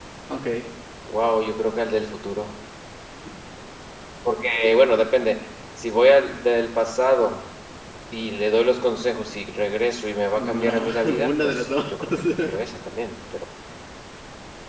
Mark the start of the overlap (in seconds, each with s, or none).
10.4 s